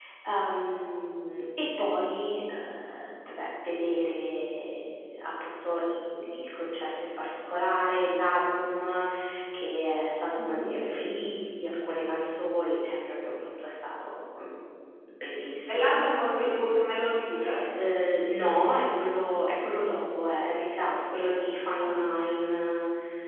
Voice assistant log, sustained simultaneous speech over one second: none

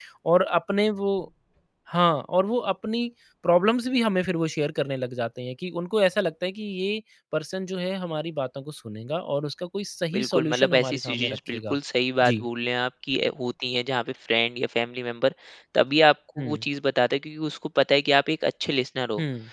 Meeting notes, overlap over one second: present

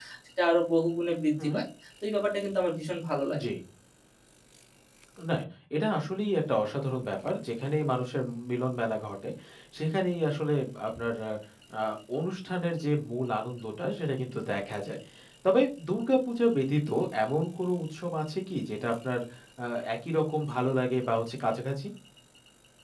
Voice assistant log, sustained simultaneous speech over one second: none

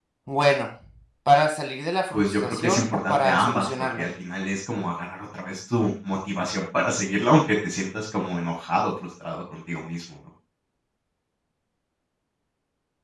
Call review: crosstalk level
present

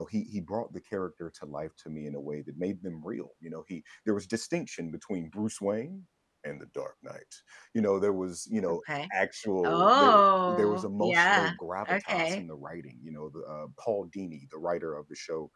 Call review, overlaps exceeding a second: present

